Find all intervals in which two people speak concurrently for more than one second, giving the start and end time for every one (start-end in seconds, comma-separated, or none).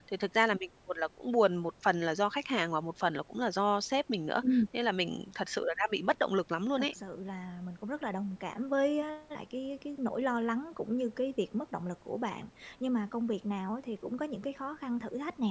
none